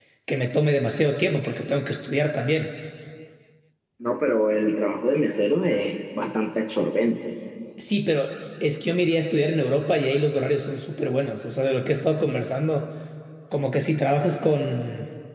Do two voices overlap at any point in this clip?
No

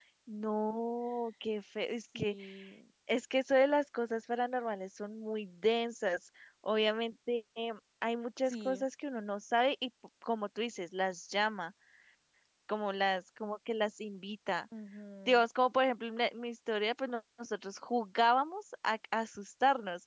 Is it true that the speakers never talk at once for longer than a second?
Yes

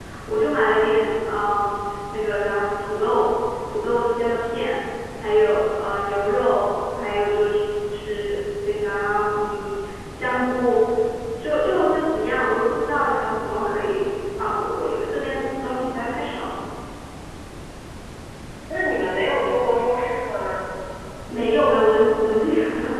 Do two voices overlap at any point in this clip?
No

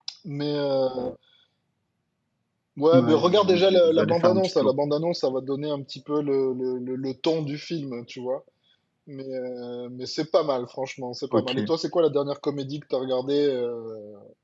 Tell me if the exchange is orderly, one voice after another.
No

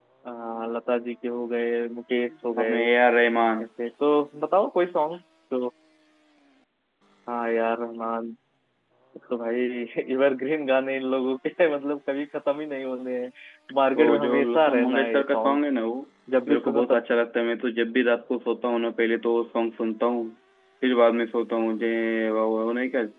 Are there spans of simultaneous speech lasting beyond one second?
Yes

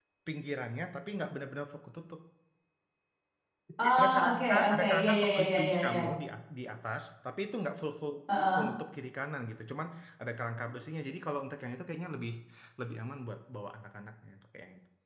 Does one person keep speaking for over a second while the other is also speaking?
Yes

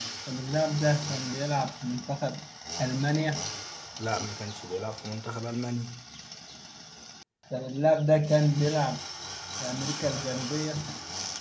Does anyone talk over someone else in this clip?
No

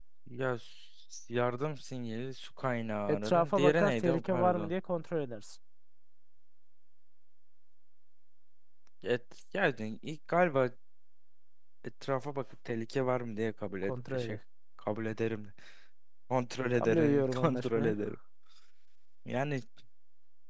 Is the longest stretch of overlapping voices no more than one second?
No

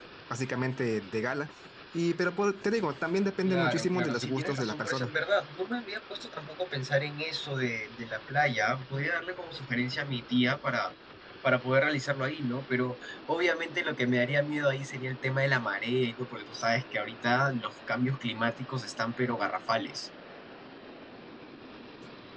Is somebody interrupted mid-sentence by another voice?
Yes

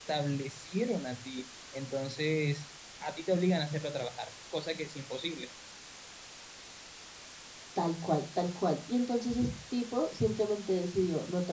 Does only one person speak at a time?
Yes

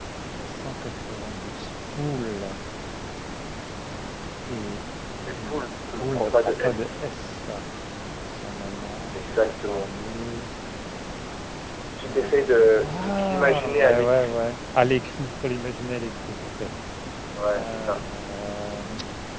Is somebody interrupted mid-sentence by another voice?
Yes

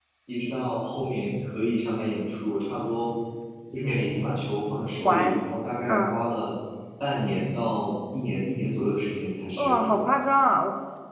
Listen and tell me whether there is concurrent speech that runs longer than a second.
No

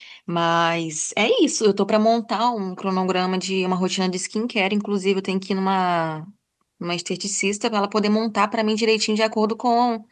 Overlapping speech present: No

